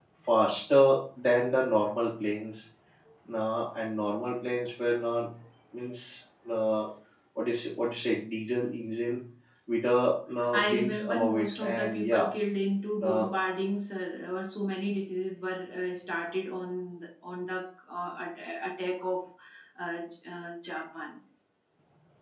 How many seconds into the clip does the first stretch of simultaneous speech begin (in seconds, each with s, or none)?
10.5 s